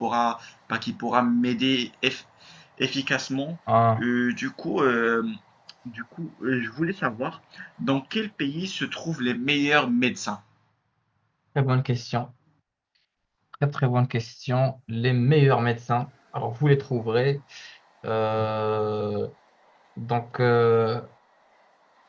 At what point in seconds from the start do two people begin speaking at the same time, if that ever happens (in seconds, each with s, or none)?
none